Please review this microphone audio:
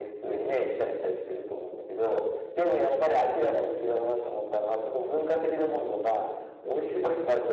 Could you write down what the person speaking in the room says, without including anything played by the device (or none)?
none